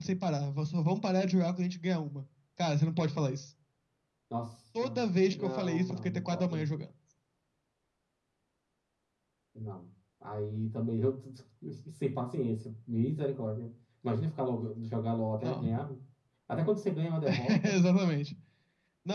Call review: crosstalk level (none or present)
present